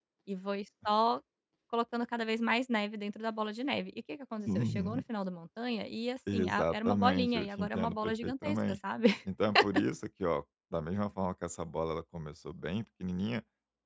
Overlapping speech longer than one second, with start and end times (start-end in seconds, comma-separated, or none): 6.3-8.8